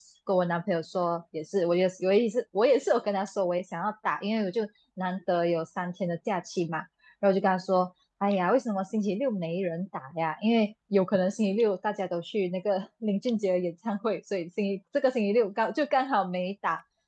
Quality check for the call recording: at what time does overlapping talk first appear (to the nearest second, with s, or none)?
none